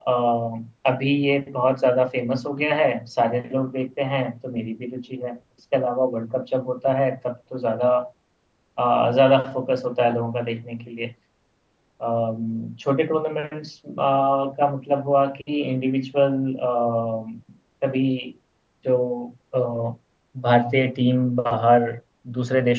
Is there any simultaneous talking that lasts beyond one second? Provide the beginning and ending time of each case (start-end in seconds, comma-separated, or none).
none